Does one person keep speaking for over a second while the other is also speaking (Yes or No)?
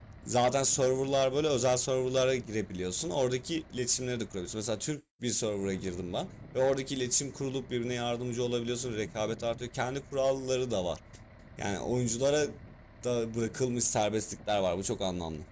No